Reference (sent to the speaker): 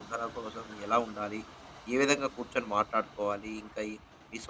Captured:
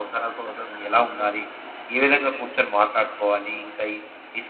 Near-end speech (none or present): none